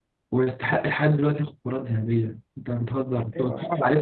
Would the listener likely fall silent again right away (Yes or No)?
Yes